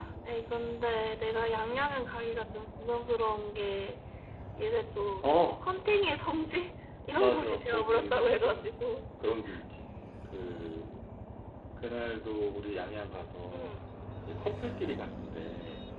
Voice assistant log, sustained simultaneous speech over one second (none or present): present